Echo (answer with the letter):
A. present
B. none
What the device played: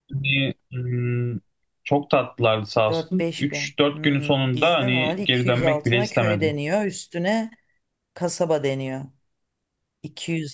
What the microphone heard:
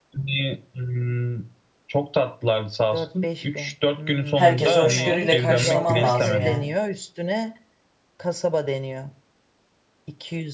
A